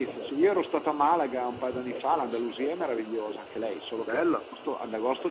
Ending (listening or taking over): listening